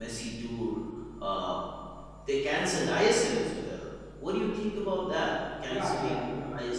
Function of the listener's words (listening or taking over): taking over